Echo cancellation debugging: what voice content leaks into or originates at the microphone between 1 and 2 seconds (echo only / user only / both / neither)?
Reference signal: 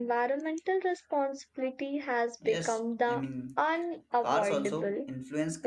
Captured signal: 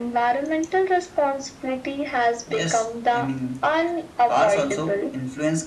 echo only